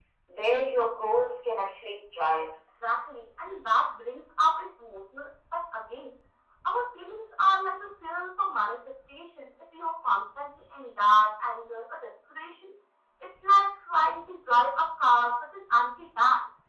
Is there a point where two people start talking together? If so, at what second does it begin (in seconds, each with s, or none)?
none